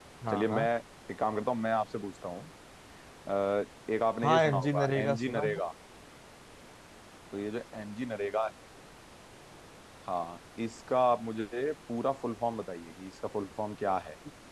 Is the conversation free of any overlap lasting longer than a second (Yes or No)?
No